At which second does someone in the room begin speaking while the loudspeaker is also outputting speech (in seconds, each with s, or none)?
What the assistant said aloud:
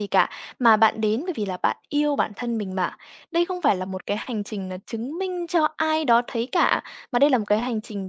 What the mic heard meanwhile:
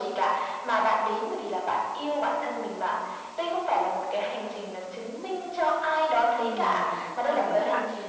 6.3 s